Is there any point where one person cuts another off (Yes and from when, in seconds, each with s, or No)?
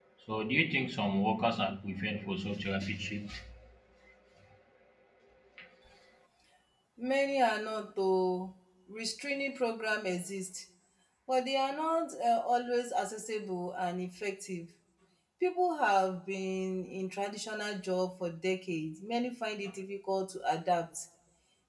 No